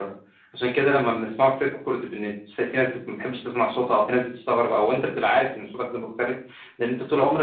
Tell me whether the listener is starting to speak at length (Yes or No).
No